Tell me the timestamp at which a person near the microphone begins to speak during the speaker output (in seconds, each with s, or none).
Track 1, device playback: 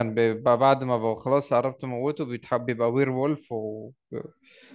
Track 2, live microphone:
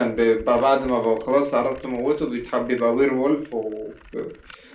none